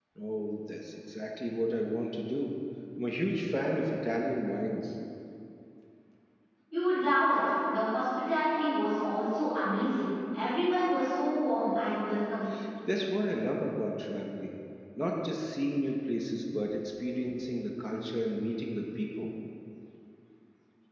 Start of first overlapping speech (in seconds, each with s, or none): none